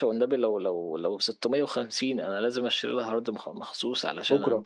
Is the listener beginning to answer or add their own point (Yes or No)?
No